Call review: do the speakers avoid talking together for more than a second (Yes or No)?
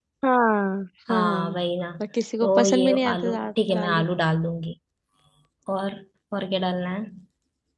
No